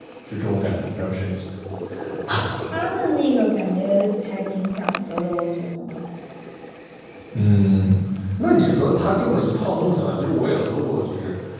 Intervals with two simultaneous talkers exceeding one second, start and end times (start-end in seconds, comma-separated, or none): none